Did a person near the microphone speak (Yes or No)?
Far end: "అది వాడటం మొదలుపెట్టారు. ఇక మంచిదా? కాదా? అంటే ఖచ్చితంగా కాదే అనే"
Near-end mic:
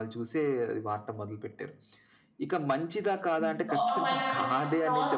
Yes